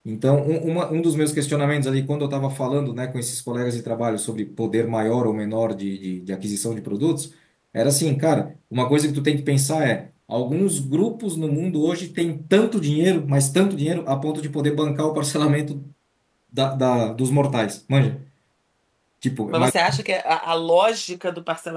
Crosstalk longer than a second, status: none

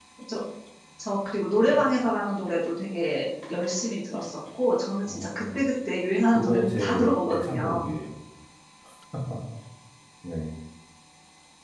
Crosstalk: present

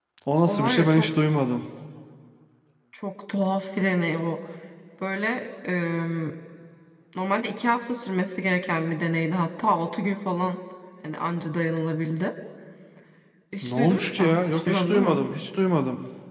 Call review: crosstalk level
present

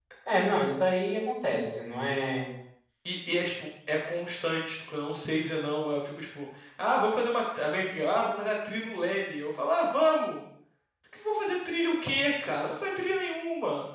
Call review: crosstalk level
none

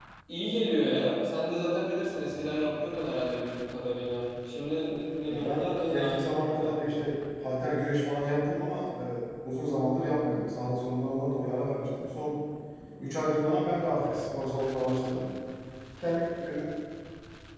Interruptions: present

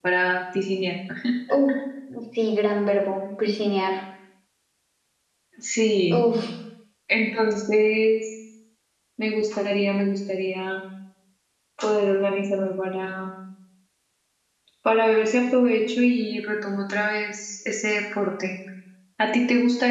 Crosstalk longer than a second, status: none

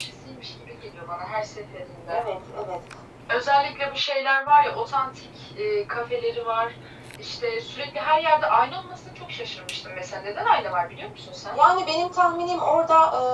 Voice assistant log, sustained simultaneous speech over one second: none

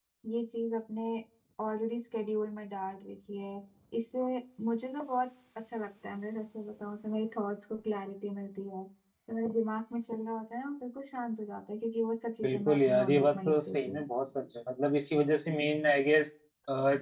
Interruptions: present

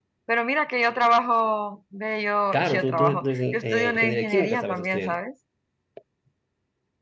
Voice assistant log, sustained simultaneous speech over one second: present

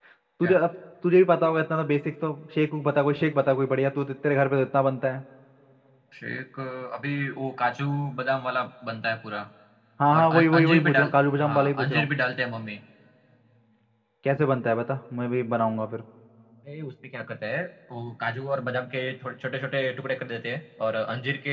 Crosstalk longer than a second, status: present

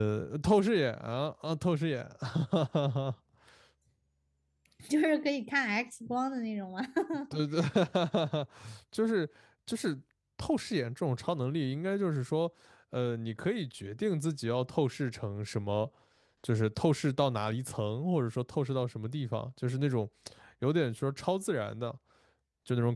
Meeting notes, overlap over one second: none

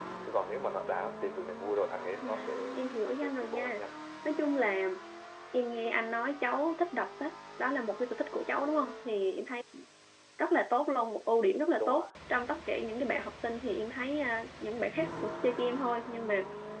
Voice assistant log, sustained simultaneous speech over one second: present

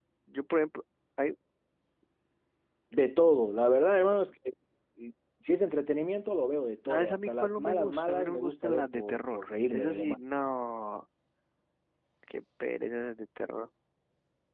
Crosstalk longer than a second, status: present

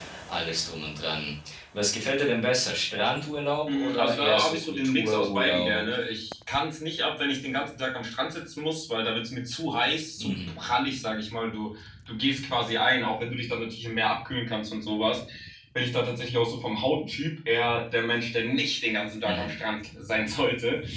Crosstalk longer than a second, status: present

